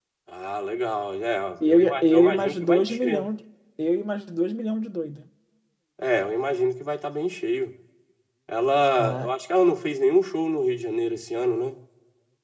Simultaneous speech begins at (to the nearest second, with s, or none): 2 s